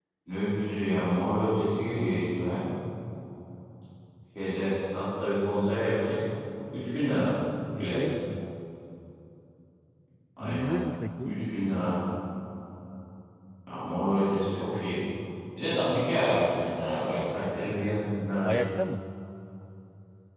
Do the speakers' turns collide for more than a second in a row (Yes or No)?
No